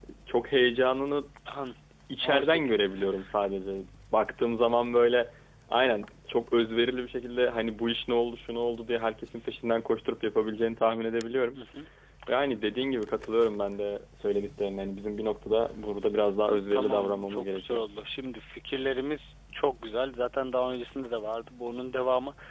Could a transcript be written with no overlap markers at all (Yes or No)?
No